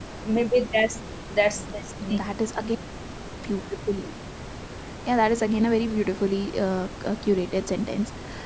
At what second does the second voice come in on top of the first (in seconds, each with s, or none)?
none